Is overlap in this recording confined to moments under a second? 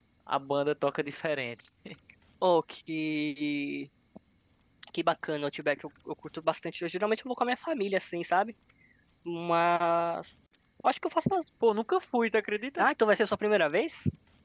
Yes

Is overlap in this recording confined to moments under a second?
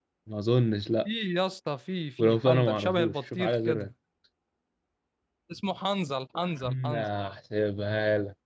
No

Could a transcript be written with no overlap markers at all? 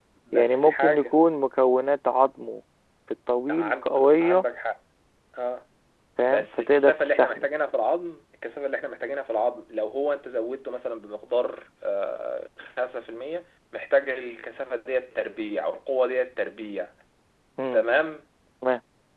No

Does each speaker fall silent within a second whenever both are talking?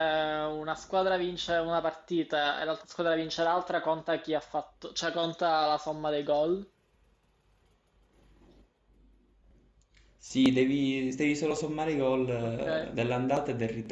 Yes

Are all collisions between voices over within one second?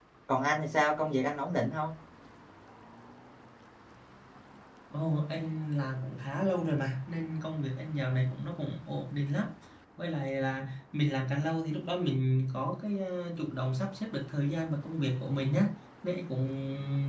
Yes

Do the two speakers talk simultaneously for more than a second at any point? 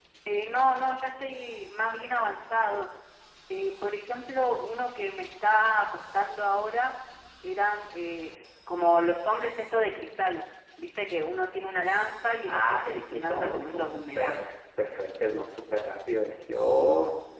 Yes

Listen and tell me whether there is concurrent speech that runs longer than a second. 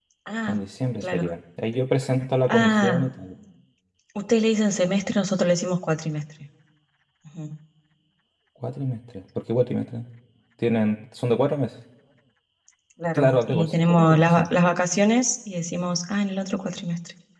Yes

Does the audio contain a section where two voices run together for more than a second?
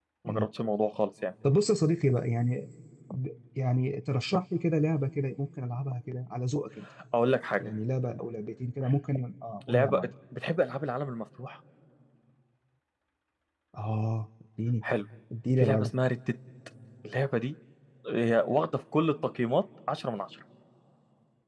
No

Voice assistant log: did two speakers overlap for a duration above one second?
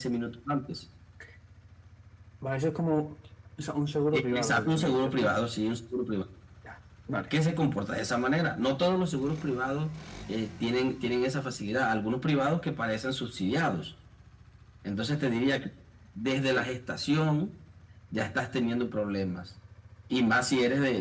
Yes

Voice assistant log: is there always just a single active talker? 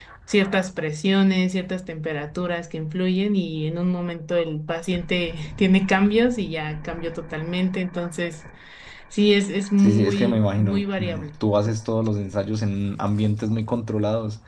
No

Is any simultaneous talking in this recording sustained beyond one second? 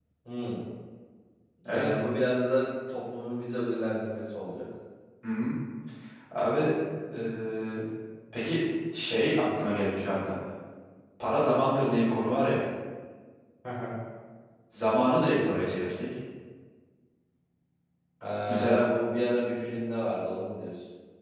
No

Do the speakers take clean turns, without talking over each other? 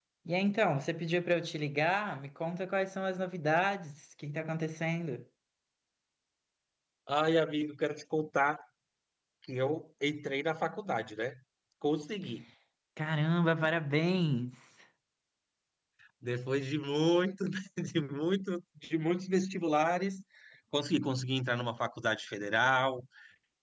Yes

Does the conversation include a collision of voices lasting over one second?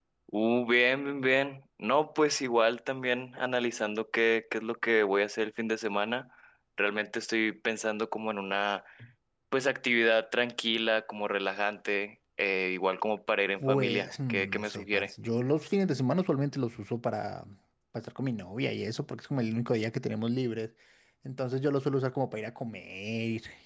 Yes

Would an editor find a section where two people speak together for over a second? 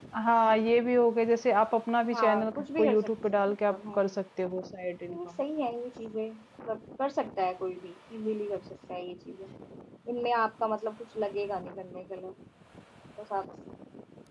Yes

